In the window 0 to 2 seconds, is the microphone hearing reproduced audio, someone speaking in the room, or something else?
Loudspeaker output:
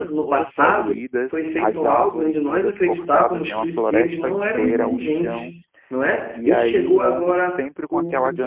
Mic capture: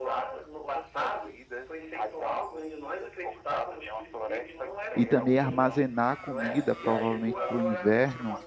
echo only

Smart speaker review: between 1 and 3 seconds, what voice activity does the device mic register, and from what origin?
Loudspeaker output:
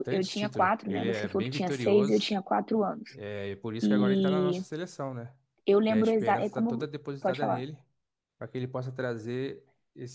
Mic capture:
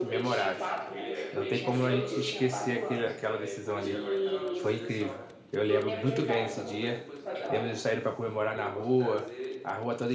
both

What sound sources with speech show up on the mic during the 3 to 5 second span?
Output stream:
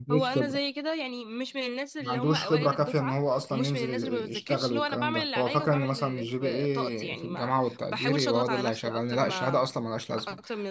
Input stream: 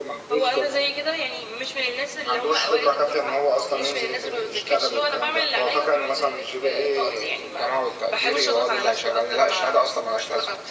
echo only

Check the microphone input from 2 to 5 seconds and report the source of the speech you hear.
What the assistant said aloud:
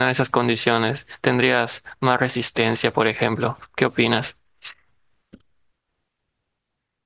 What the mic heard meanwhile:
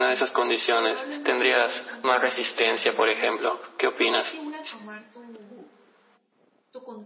both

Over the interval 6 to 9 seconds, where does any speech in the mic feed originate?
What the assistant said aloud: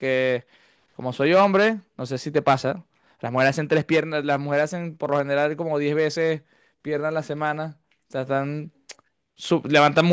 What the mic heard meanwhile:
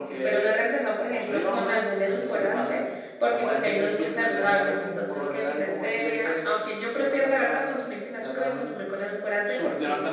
both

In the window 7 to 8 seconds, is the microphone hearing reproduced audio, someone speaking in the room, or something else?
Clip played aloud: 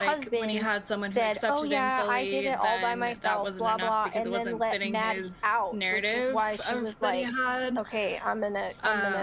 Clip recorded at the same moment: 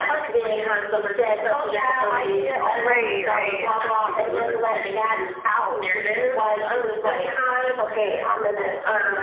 echo only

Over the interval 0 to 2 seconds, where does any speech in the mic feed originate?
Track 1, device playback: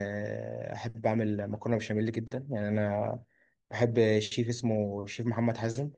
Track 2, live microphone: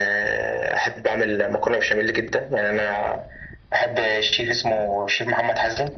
echo only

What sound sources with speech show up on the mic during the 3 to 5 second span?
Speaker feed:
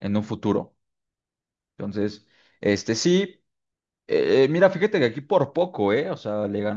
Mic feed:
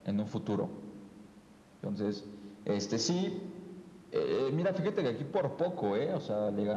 echo only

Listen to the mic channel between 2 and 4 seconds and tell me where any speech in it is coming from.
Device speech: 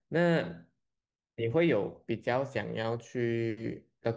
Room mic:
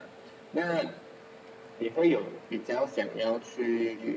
echo only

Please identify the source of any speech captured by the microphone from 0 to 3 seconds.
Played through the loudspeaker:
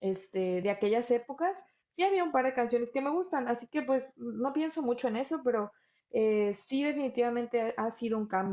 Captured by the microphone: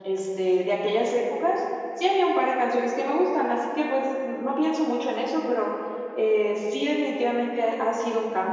echo only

